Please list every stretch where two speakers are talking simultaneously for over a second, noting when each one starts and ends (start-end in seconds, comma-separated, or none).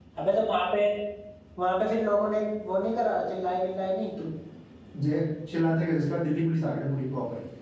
none